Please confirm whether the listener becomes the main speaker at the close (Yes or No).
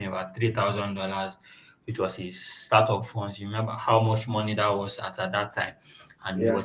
No